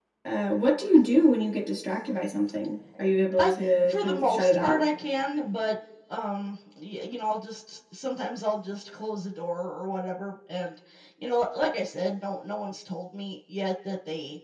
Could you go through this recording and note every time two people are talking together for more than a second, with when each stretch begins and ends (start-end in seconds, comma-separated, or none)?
3.4-4.8